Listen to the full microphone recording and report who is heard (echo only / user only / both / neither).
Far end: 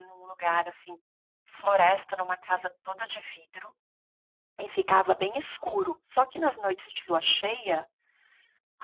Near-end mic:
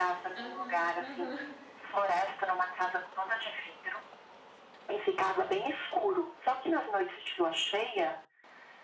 both